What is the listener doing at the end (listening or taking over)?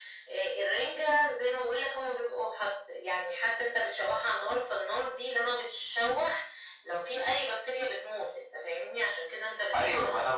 taking over